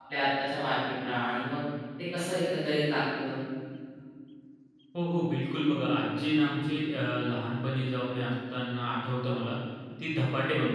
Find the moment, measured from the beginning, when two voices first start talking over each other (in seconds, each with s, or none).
none